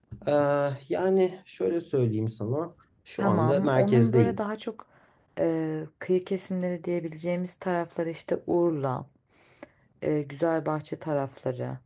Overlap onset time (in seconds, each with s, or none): 3.2 s